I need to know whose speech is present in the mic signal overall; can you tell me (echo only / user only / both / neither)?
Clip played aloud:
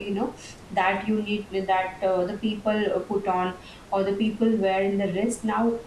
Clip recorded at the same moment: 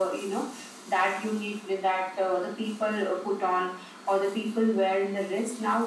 echo only